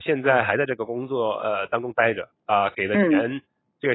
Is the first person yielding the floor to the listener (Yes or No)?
No